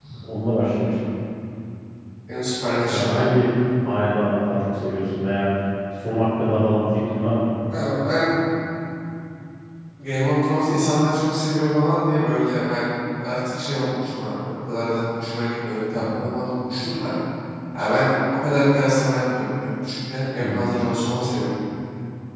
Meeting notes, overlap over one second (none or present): none